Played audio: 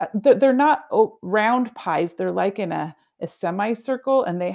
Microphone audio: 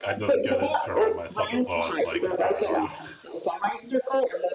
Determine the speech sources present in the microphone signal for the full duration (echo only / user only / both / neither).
both